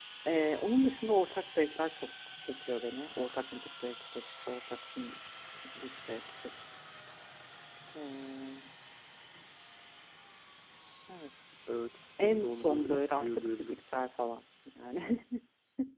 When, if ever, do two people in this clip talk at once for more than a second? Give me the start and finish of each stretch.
12.2-13.8

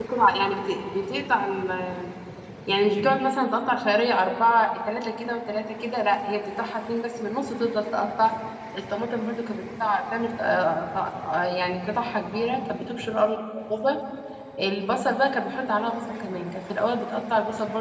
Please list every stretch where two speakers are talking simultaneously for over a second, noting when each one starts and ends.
none

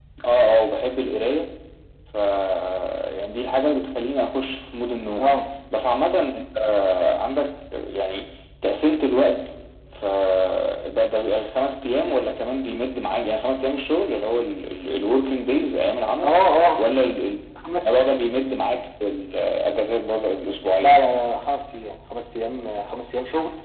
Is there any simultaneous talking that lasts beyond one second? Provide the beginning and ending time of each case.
none

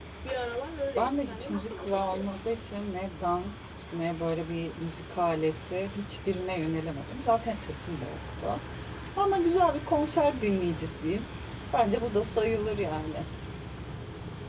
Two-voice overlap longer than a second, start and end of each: 1.0-2.2

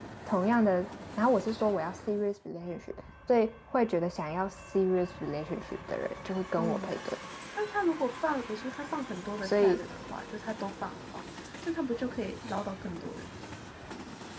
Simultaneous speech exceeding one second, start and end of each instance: none

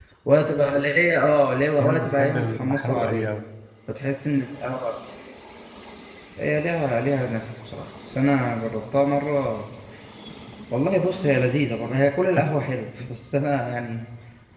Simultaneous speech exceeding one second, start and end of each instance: 1.8-3.3

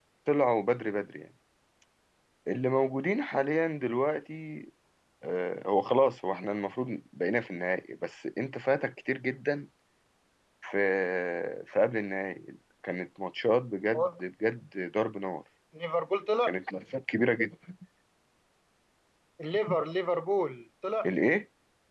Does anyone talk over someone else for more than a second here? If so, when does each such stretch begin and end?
none

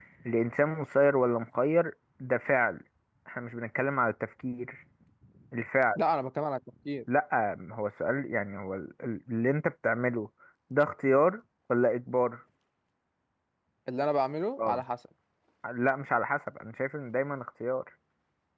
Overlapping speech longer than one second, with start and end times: none

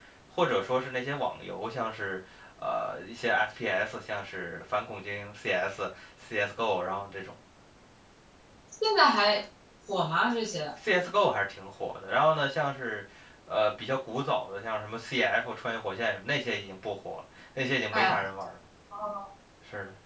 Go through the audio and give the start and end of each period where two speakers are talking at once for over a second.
none

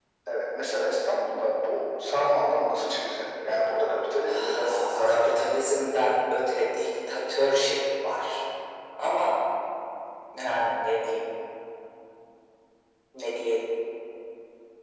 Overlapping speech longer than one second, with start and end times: 4.3-5.7

